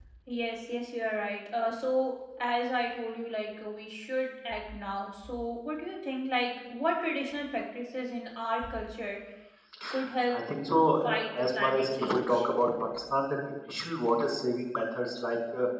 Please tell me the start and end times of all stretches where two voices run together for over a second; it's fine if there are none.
11.0-12.4

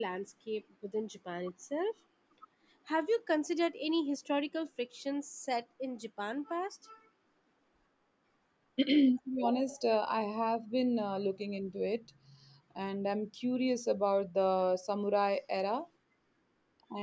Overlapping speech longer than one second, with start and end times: none

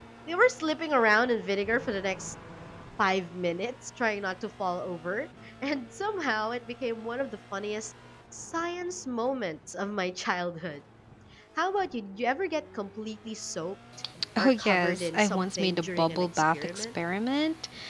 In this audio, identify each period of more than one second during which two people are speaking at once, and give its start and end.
14.4-16.9

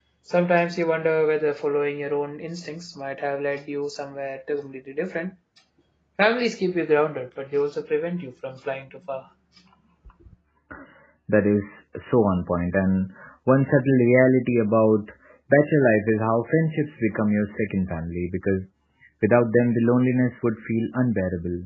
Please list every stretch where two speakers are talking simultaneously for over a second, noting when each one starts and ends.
none

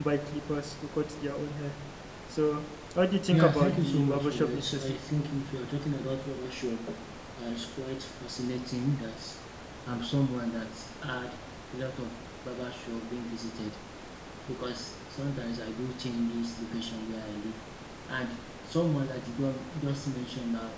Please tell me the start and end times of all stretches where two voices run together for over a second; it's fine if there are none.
3.3-5.0

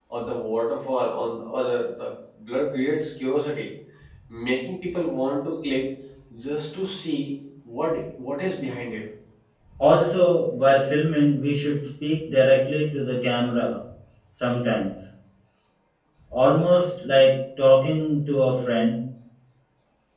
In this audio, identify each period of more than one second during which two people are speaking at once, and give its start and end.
none

